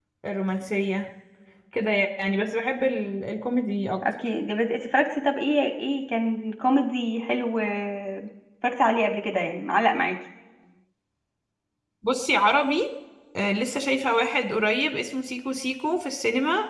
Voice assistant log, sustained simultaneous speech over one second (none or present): none